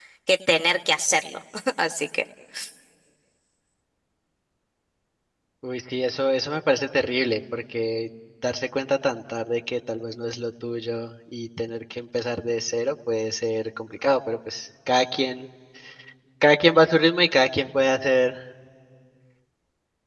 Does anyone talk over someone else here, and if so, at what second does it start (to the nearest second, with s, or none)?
none